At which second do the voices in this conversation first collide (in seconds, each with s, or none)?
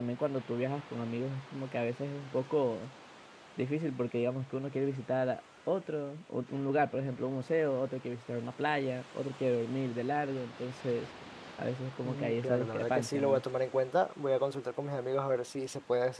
12.0 s